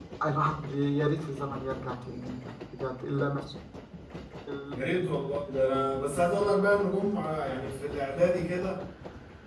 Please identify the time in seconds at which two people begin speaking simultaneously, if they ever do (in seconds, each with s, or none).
none